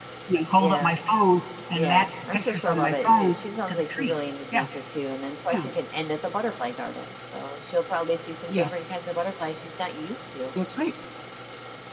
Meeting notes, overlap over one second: present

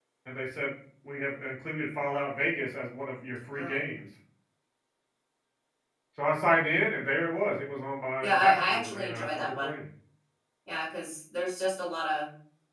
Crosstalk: present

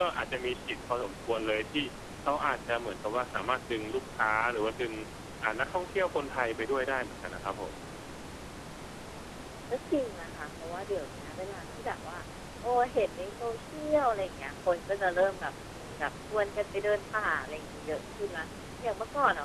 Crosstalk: none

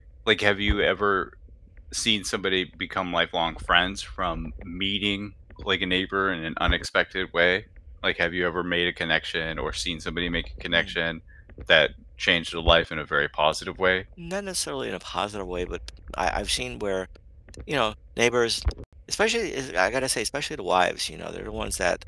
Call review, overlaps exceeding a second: none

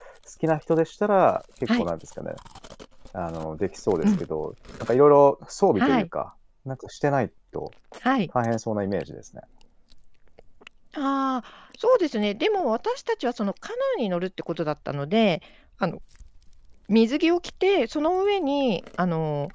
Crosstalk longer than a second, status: none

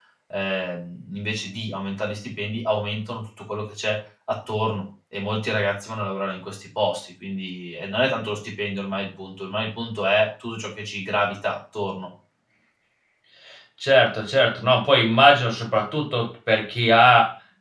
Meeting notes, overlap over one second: none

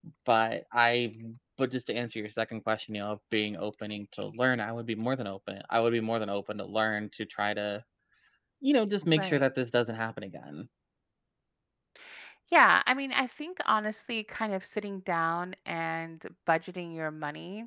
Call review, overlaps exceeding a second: none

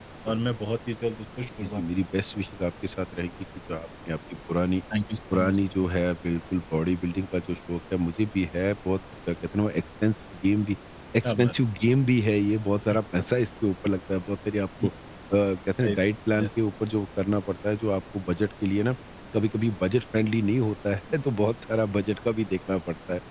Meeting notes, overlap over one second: none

